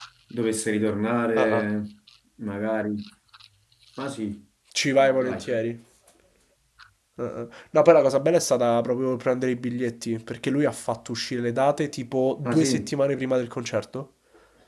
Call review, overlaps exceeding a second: none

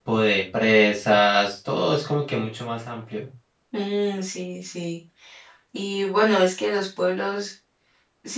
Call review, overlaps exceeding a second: none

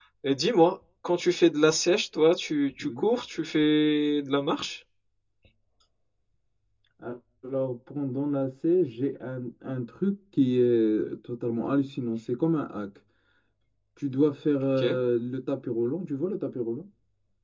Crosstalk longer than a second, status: none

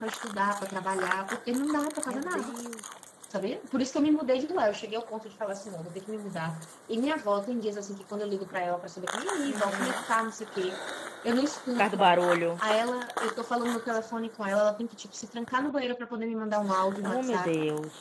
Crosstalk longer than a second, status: none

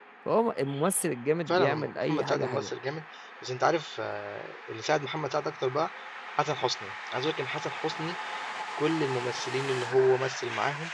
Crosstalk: present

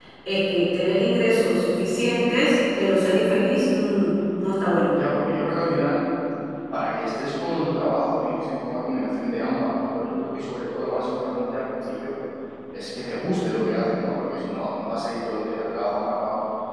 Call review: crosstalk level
none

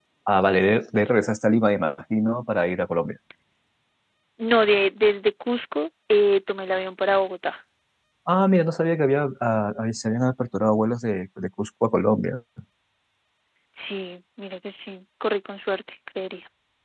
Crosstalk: none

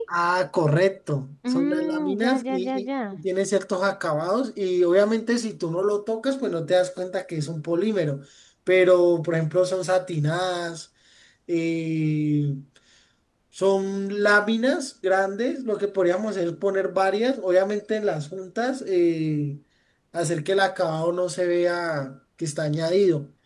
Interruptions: present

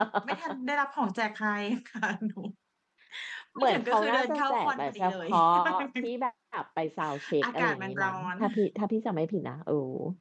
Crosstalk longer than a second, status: present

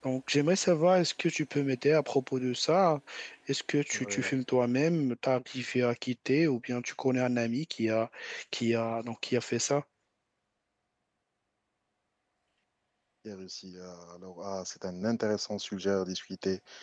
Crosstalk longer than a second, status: none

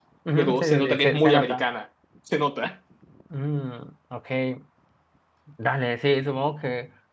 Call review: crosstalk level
present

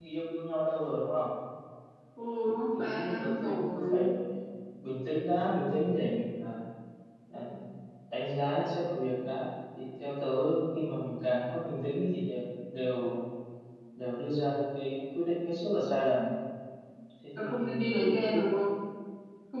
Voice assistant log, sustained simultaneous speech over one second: present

